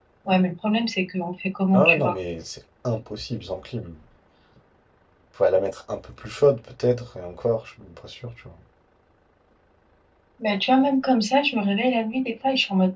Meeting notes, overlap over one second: none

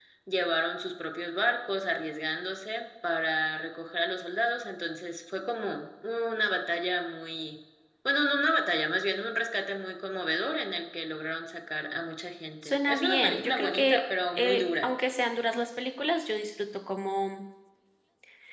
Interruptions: present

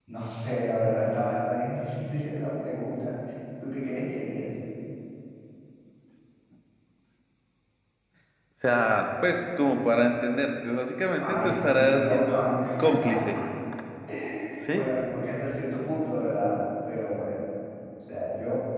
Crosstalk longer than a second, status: present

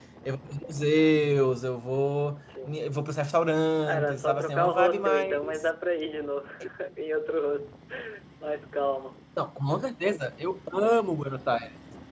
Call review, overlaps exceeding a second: present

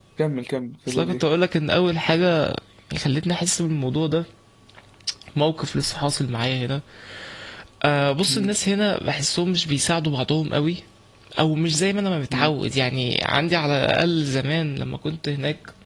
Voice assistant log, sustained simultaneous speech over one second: none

